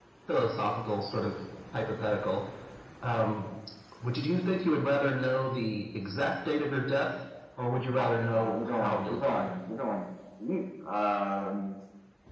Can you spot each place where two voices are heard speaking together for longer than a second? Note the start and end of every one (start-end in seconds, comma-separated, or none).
7.9-9.5